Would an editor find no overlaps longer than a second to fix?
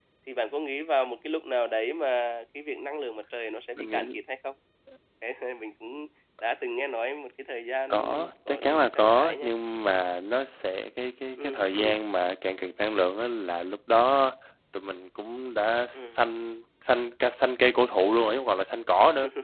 No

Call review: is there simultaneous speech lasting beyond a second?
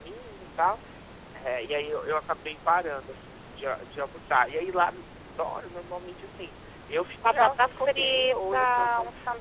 Yes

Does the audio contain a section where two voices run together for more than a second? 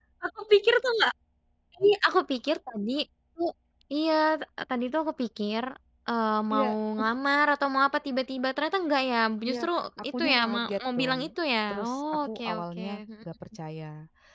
Yes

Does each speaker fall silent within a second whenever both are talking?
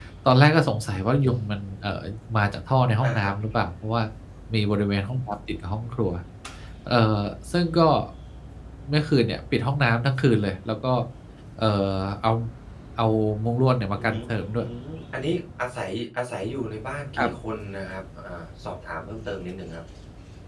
Yes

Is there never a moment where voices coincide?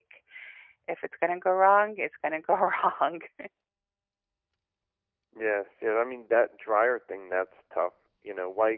Yes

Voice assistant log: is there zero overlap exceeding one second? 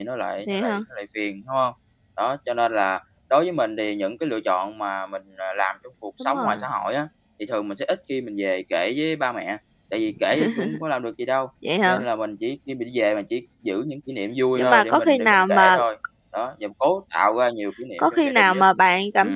No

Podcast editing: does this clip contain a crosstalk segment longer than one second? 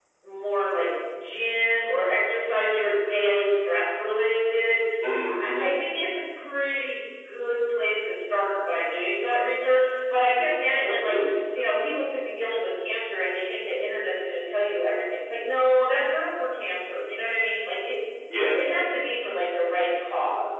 No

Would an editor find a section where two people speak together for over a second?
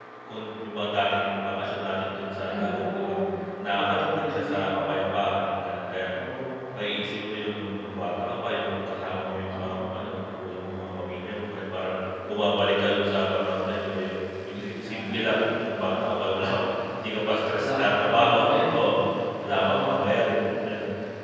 Yes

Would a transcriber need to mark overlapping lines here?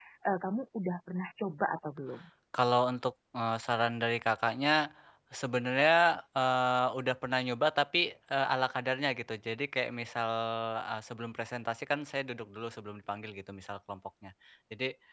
No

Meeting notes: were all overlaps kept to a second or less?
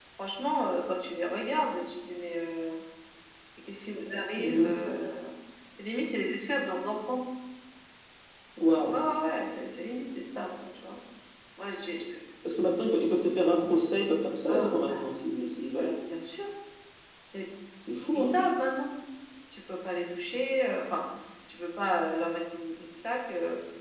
Yes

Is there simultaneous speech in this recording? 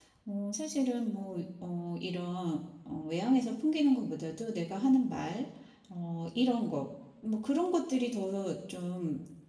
No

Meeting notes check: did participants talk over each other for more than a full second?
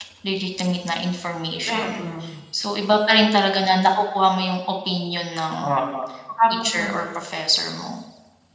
No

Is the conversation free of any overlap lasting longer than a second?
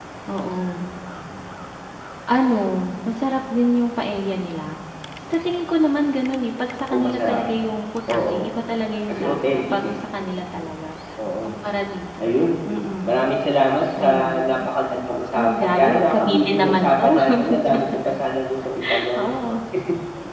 No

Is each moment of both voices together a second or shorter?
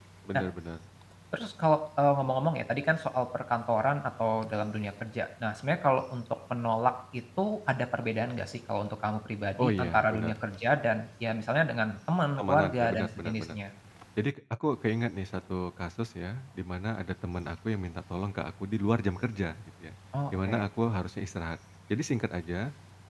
No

